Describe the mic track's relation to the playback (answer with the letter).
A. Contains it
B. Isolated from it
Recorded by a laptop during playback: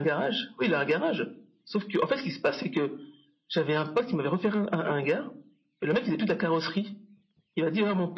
A